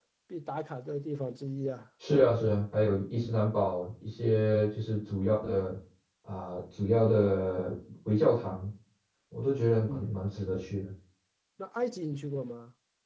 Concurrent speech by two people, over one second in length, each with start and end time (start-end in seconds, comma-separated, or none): none